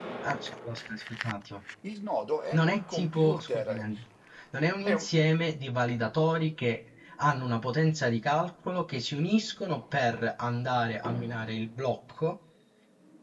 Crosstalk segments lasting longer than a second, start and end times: 2.5-3.8

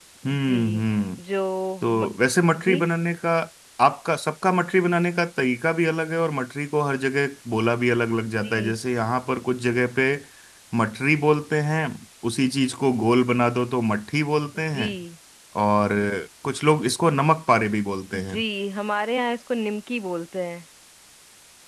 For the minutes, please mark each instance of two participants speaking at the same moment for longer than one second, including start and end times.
none

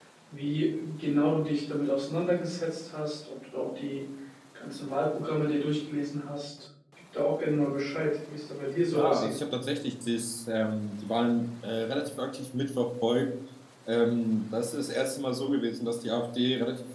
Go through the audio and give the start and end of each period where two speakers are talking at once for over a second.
none

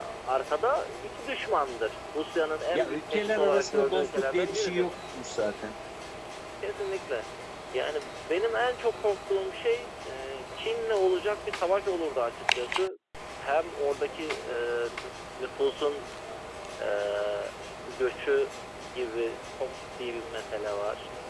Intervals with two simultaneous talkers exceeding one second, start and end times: 2.7-4.9

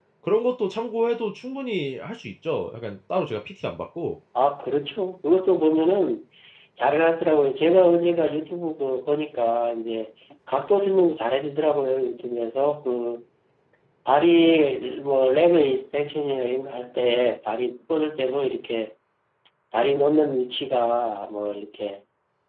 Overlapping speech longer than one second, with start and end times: none

